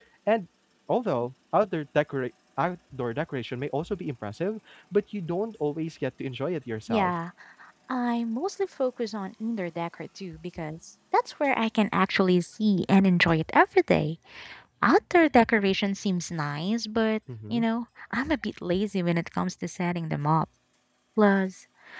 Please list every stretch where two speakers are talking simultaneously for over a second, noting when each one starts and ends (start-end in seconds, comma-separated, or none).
none